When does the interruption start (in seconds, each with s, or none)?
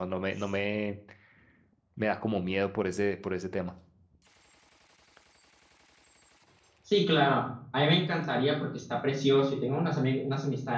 none